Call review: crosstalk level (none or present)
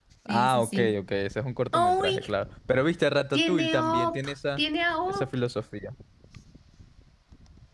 present